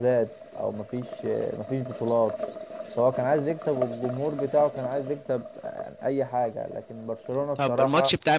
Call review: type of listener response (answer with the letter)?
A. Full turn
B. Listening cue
A